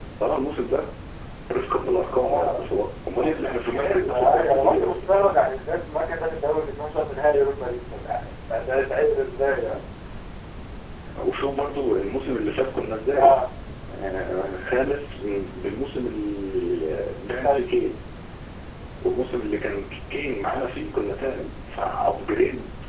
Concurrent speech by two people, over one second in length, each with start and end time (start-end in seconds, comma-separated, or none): 3.2-5.0